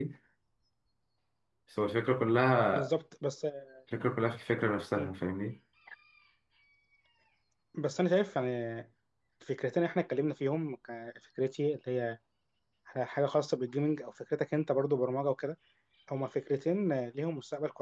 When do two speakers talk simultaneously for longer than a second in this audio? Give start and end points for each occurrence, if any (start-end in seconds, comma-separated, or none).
none